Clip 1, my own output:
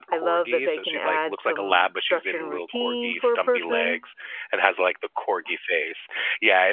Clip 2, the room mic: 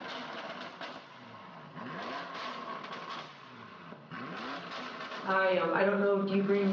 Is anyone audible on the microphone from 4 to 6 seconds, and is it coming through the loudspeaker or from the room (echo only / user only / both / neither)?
user only